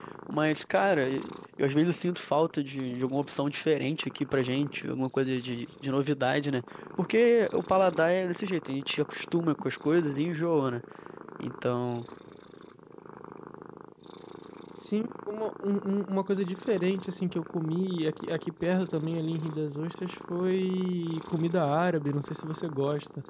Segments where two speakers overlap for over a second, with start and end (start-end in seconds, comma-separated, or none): none